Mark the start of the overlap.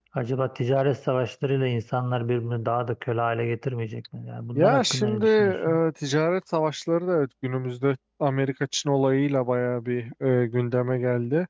4.6 s

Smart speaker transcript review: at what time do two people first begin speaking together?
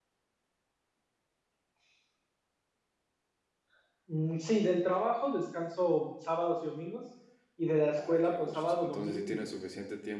7.9 s

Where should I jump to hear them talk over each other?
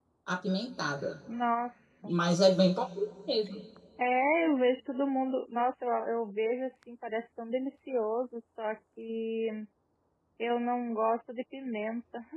none

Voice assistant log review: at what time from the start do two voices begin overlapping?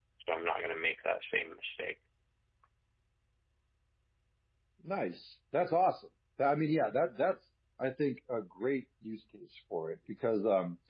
none

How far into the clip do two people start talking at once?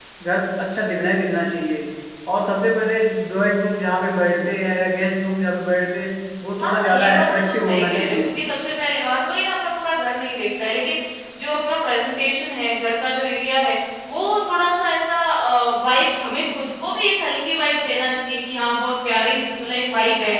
6.6 s

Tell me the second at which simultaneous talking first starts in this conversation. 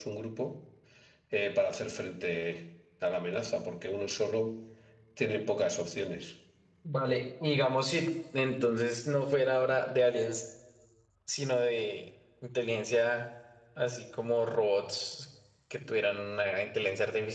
none

